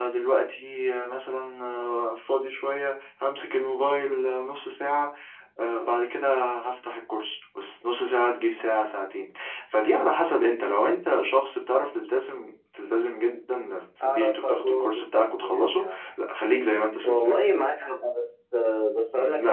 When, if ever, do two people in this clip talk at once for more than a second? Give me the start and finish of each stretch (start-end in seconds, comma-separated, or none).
14.0-16.0